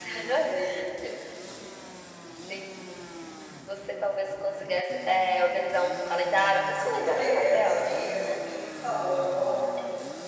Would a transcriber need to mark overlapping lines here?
Yes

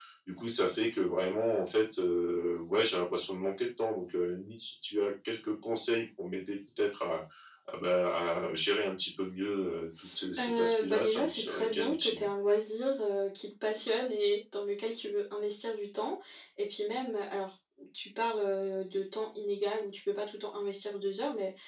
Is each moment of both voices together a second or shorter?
No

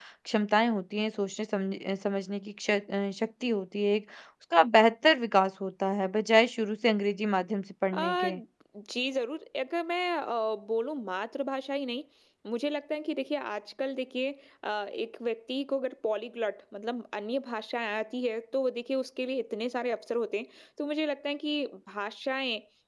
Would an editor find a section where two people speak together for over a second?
No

